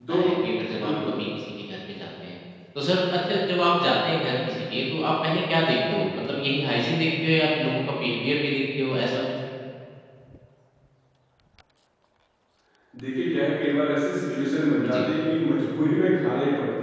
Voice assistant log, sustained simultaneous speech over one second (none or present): none